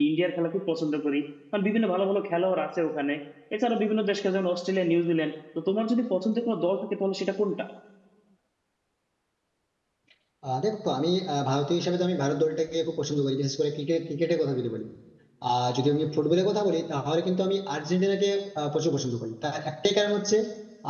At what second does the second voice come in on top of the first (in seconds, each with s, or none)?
none